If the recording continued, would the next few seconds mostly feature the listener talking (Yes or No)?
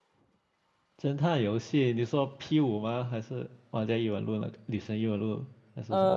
Yes